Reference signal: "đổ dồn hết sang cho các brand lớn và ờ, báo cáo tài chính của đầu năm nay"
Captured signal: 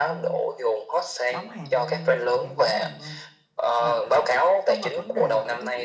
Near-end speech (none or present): present